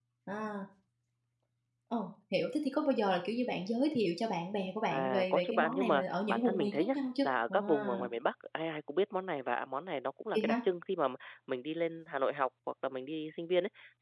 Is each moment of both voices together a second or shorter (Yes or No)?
No